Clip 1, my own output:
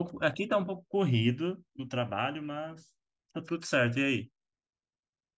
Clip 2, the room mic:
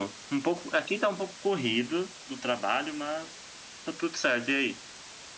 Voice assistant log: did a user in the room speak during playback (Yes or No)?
No